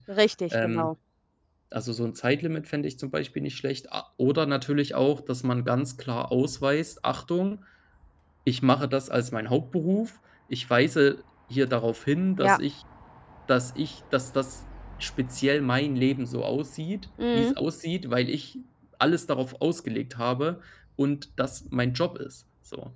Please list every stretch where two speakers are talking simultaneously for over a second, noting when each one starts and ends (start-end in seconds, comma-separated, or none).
none